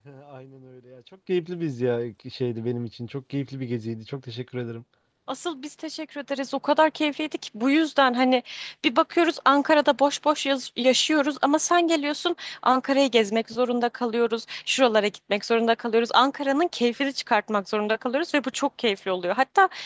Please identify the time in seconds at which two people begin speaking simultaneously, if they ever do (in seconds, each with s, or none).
none